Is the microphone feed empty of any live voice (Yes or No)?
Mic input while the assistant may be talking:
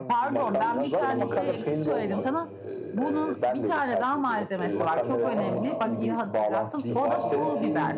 No